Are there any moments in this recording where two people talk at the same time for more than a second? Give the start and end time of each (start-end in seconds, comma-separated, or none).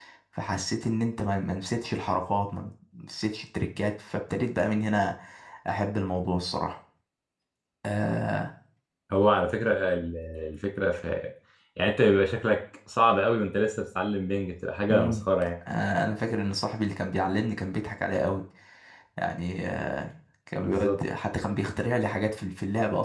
none